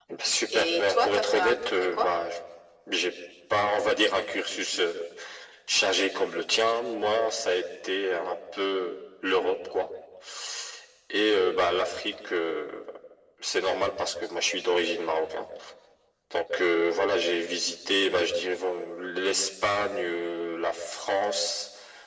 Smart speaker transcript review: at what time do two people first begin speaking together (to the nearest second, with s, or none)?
1 s